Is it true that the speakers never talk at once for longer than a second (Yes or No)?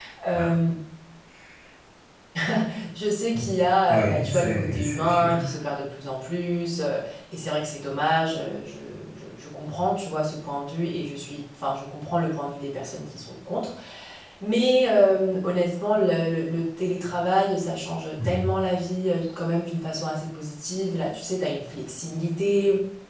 No